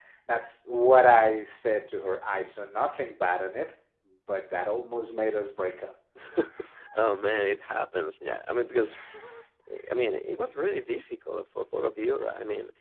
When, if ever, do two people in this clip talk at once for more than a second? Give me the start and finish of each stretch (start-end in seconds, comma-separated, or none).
none